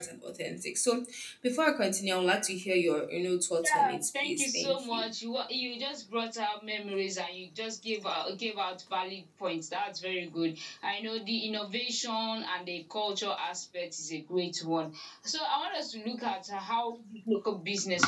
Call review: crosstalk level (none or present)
present